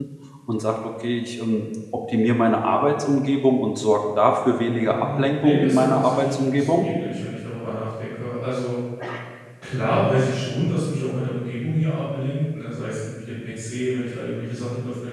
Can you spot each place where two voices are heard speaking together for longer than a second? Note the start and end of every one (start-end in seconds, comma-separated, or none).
4.8-6.8